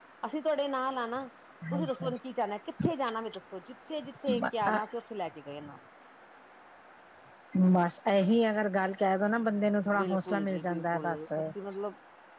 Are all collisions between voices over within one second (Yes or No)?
No